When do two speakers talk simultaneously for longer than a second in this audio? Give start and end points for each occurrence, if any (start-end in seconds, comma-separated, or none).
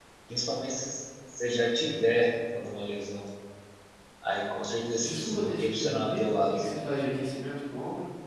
5.0-6.5